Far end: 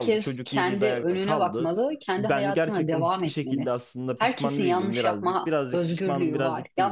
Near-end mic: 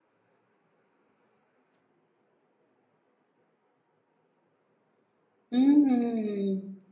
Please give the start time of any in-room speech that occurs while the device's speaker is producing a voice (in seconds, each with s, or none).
5.5 s